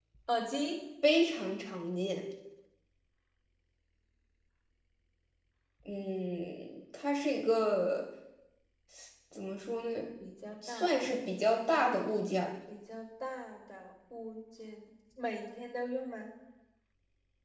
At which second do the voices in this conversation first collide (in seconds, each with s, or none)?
10.6 s